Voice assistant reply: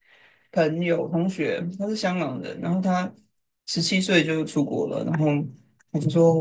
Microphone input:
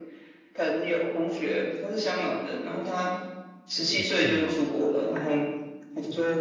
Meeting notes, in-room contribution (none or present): present